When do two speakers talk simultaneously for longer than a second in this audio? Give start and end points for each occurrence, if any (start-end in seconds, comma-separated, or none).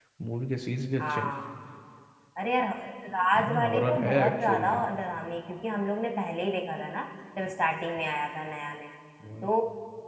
3.4-4.8